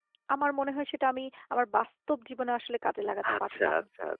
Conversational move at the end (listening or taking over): taking over